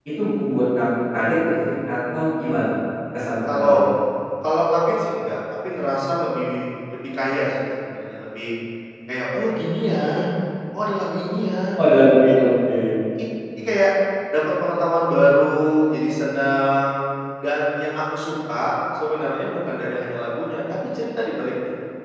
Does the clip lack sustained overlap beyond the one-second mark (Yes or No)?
Yes